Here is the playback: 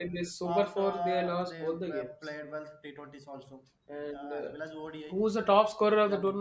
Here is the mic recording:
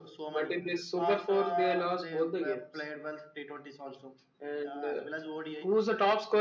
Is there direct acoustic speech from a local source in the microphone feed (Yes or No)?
No